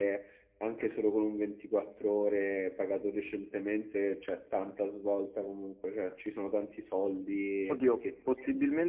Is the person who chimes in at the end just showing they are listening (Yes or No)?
No